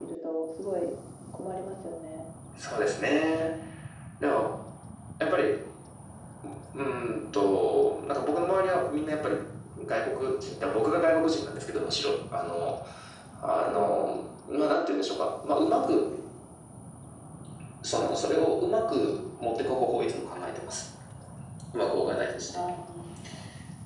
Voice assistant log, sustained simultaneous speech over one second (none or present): none